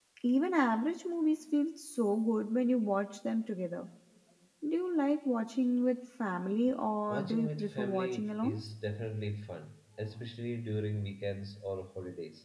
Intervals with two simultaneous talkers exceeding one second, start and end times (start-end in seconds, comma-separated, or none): 7.1-8.6